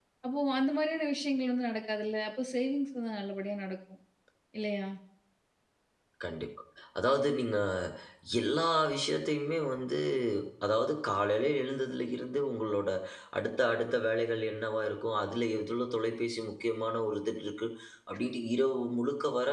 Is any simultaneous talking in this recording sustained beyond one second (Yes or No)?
No